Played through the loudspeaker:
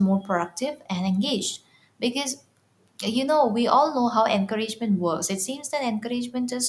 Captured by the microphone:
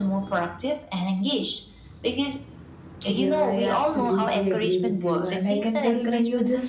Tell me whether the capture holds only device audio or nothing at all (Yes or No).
No